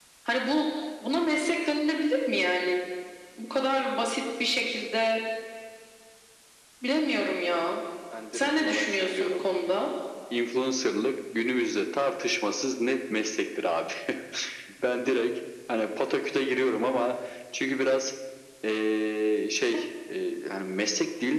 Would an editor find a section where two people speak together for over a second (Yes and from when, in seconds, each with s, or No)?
Yes, from 8.3 s